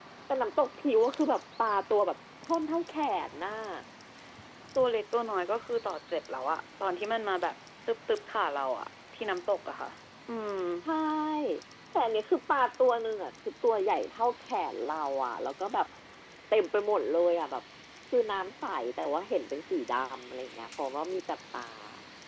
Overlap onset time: none

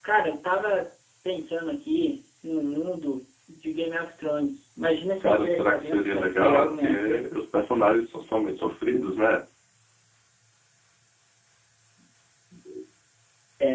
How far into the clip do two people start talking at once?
5.2 s

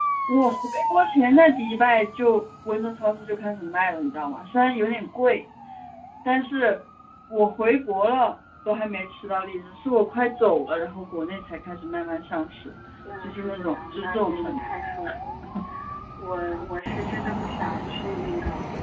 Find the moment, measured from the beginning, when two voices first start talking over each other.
13.2 s

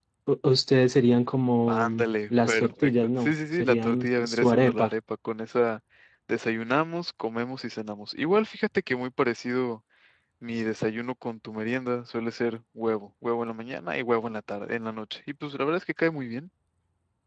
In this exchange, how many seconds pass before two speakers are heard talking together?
1.7 s

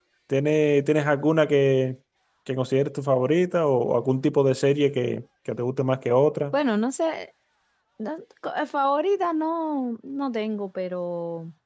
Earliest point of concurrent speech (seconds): none

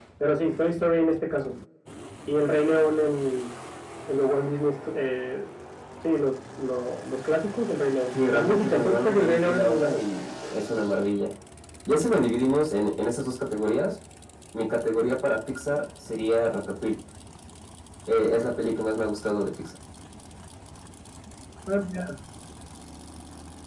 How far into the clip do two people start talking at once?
8.1 s

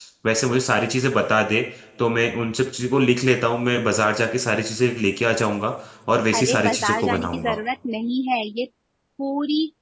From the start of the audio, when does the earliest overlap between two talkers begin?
6.3 s

